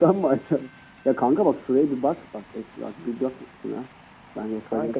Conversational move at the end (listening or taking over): taking over